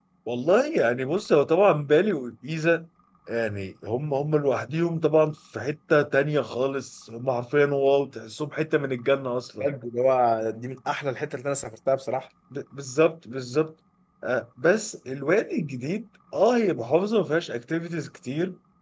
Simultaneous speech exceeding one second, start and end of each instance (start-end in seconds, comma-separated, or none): none